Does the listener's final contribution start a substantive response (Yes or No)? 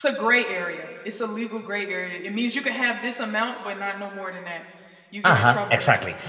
Yes